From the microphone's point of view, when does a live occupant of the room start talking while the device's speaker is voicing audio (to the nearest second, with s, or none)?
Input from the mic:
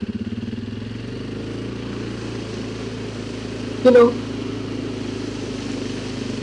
4 s